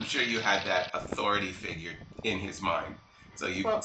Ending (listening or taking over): listening